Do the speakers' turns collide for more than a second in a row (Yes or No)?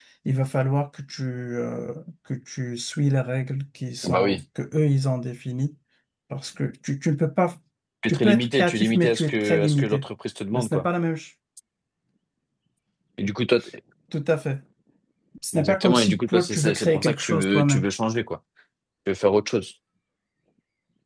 Yes